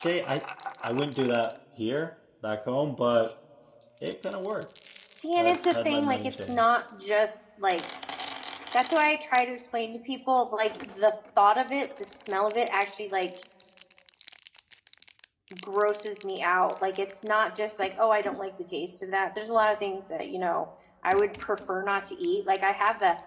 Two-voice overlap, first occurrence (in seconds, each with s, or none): 5.4 s